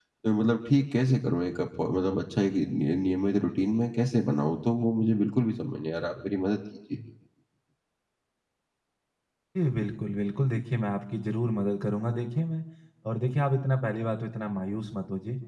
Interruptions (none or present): none